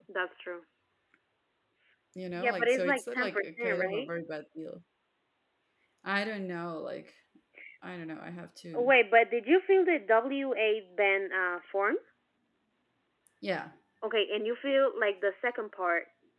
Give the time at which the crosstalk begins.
2 s

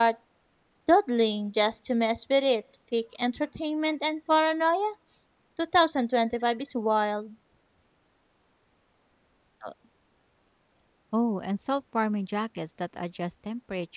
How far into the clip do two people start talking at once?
none

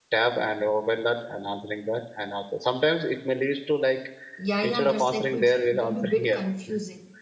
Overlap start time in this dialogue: 5 s

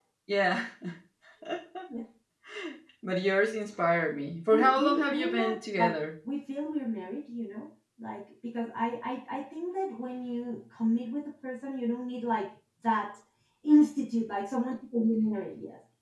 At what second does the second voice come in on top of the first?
5 s

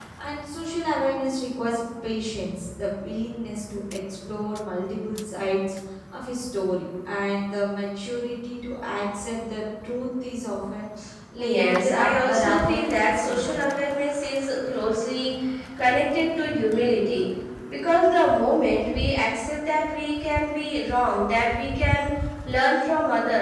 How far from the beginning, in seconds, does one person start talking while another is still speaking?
11 s

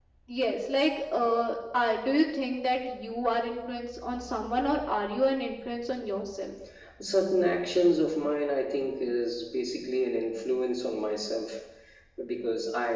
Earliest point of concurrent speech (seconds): none

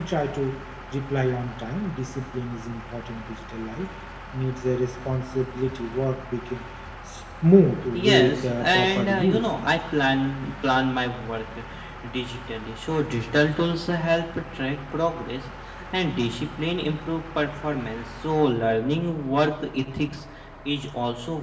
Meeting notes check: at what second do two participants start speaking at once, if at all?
8 s

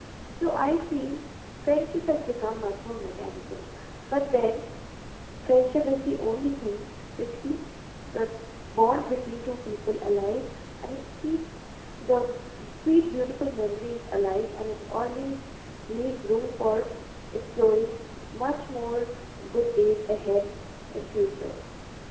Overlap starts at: none

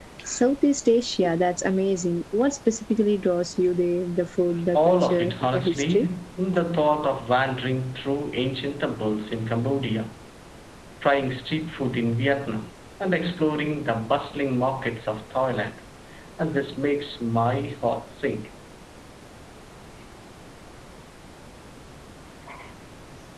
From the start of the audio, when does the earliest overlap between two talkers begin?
5 s

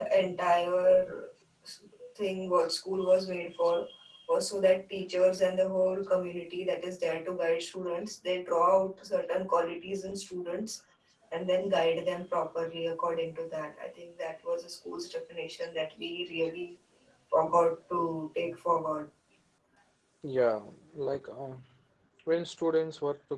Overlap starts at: none

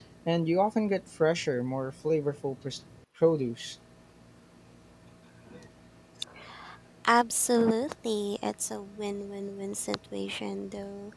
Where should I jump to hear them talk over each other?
none

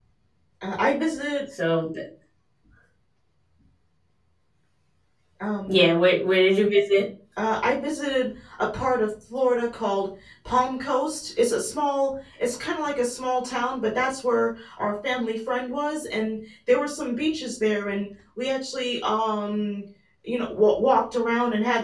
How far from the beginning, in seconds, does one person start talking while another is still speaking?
none

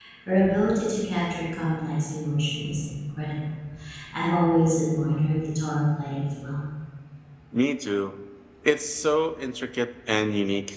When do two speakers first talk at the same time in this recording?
none

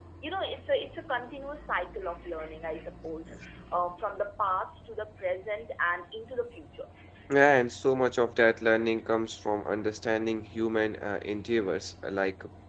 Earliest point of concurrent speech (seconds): none

